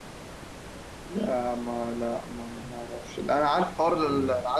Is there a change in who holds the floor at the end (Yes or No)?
No